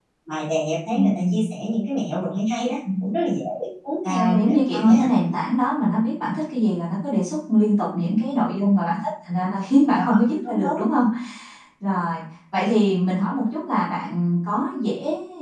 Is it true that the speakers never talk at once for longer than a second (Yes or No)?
No